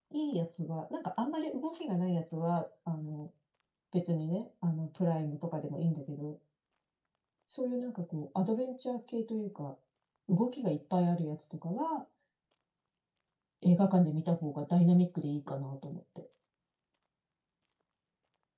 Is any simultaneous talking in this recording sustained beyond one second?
No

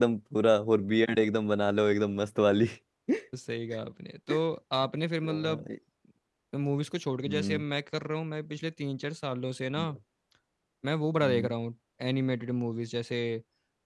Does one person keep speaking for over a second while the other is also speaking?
No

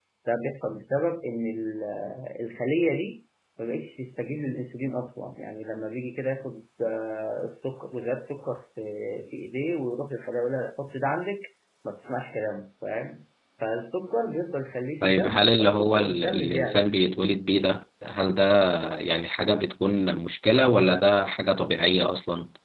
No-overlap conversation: No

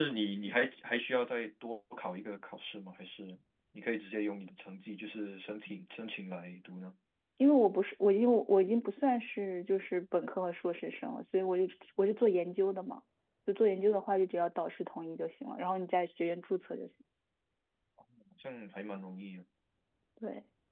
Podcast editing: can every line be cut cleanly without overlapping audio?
Yes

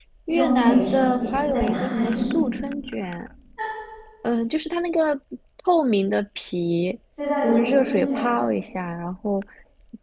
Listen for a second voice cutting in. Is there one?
Yes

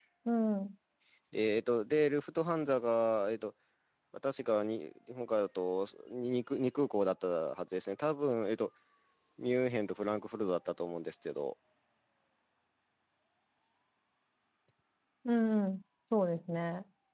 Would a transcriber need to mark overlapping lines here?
No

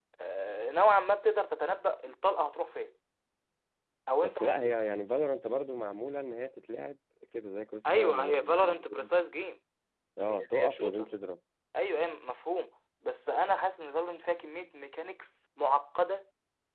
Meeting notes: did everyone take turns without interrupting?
No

